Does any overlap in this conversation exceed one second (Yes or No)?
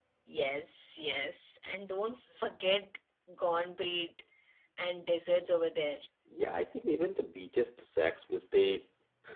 No